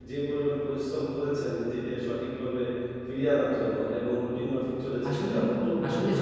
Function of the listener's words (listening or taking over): taking over